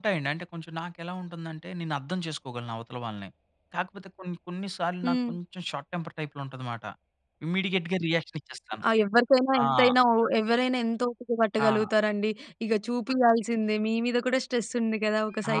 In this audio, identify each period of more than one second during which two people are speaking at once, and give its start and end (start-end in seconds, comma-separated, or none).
none